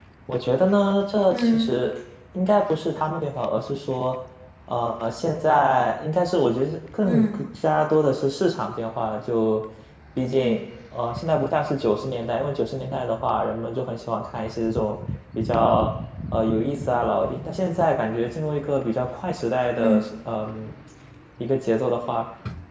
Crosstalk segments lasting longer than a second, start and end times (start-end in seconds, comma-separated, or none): none